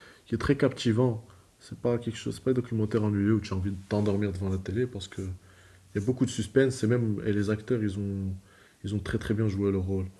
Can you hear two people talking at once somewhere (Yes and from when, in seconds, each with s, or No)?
No